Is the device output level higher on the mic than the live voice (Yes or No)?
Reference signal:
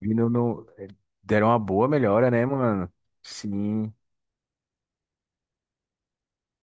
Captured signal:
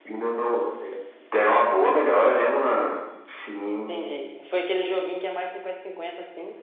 Yes